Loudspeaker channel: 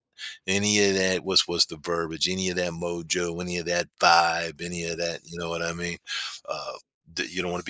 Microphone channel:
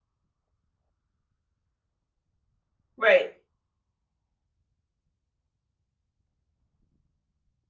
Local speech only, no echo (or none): right,